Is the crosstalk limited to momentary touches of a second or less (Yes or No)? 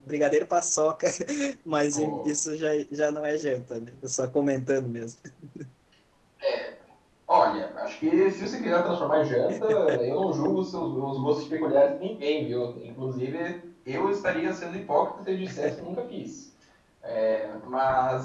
Yes